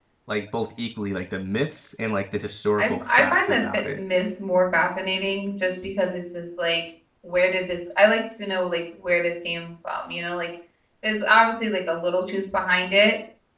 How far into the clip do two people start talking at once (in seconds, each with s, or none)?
2.8 s